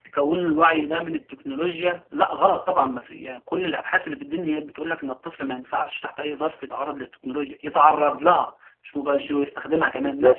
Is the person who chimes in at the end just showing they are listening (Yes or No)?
No